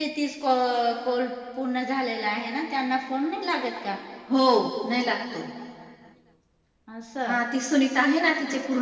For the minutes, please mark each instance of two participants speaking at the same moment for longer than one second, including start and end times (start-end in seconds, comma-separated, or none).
none